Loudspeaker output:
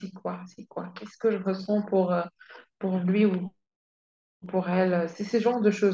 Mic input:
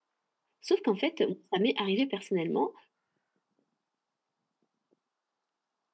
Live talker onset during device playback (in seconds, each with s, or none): 0.6 s